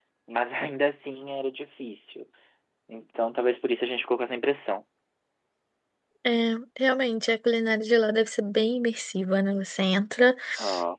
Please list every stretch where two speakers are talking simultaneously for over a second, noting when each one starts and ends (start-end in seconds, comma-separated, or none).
none